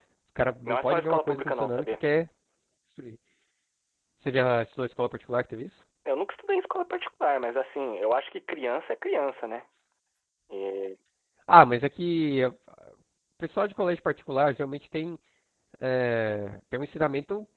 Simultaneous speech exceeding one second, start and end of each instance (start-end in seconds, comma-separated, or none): 0.7-1.9